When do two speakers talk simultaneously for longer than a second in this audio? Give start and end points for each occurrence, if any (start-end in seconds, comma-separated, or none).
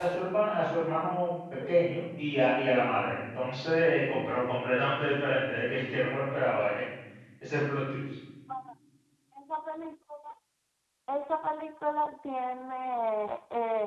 none